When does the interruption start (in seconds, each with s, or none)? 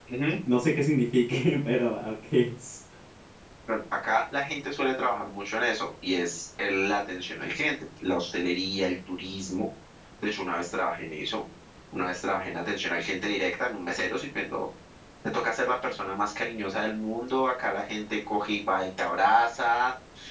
none